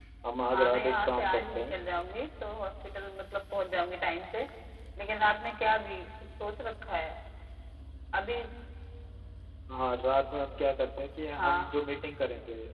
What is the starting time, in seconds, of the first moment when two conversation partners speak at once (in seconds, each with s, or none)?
0.5 s